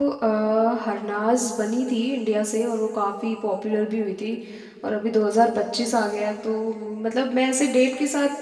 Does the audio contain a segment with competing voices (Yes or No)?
No